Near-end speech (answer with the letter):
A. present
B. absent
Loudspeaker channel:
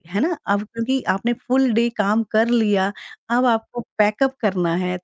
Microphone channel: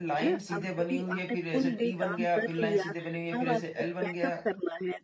A